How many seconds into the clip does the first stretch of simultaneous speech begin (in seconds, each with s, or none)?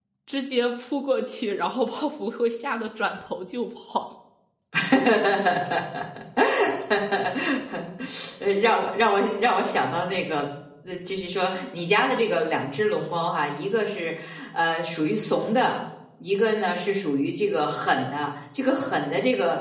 none